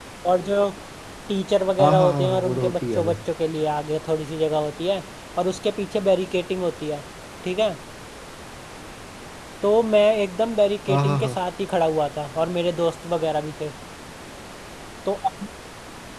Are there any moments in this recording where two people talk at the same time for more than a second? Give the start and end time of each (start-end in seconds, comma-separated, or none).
1.8-3.2